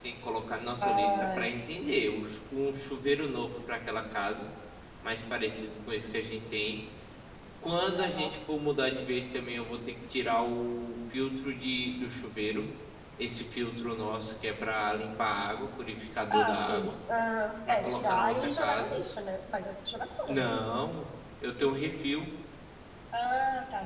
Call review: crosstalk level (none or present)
present